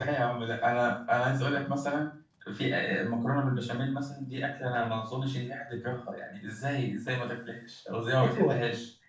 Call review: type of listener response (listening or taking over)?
taking over